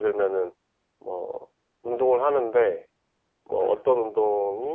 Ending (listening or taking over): listening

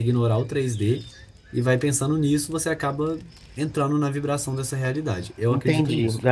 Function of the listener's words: taking over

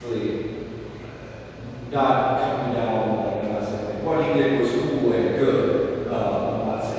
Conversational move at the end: listening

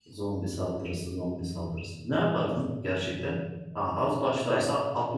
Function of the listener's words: listening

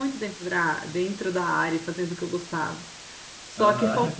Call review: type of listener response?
taking over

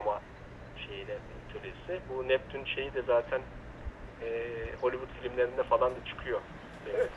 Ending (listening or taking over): taking over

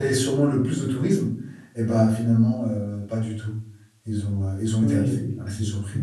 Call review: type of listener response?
taking over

